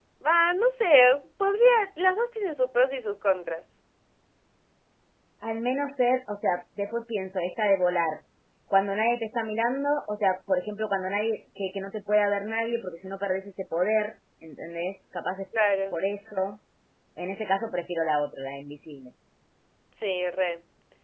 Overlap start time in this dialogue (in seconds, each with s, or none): none